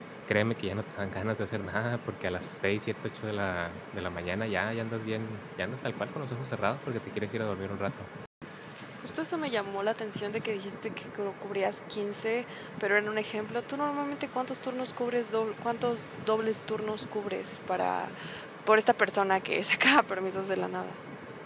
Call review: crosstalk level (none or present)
none